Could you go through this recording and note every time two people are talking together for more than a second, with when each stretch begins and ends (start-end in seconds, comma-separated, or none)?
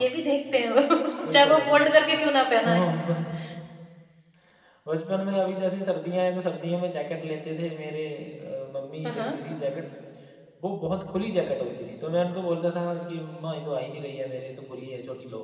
none